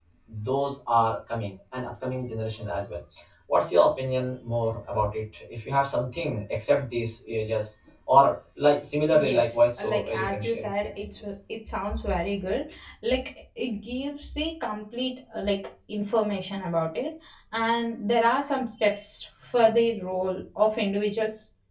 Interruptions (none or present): present